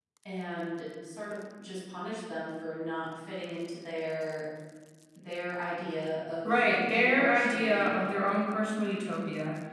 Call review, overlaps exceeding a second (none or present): present